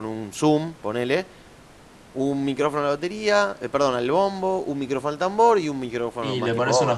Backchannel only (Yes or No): No